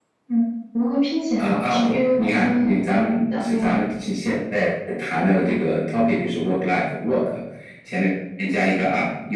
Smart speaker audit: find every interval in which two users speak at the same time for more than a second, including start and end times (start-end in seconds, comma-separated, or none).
1.4-2.8